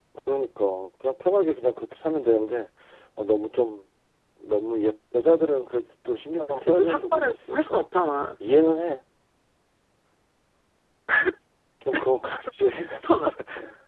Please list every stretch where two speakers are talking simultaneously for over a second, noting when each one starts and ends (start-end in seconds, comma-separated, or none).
6.5-7.9